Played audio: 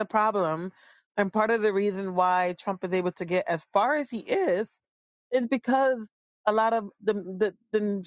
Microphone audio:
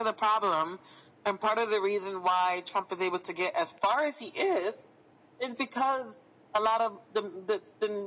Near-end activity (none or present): none